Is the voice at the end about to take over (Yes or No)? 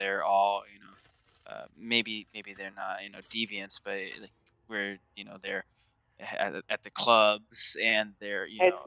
Yes